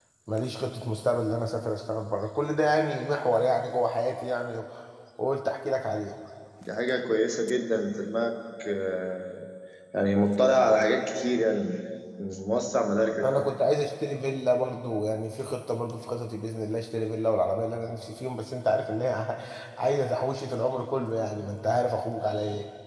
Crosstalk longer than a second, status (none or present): none